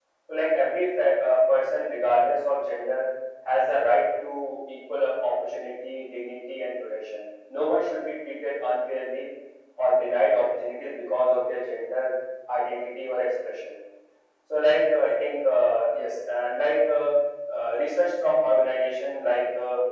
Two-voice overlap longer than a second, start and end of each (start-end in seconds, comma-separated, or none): none